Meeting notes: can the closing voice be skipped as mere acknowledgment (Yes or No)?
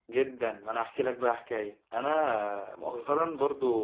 Yes